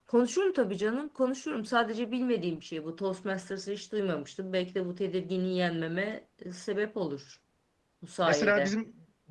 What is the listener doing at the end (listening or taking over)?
taking over